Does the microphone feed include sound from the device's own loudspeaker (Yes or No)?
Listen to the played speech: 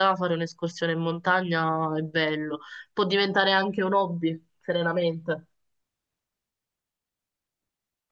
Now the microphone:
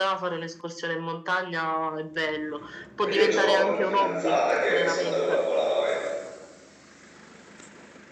Yes